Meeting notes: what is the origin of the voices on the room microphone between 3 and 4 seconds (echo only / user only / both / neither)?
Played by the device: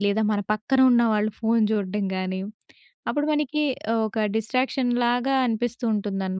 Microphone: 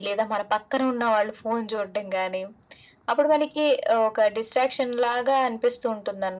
echo only